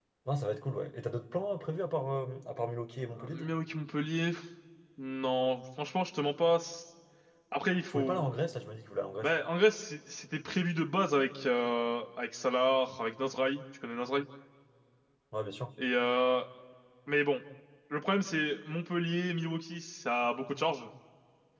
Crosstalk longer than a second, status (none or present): none